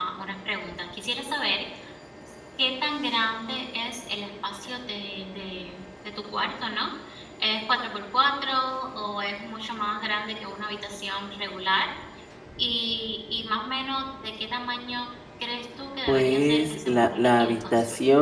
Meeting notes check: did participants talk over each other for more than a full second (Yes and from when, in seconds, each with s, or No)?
Yes, from 16.1 s